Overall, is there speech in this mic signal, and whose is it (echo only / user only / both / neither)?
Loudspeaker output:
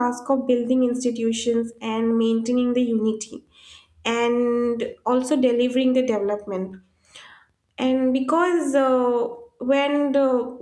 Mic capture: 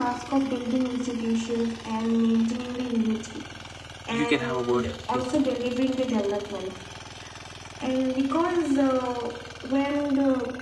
both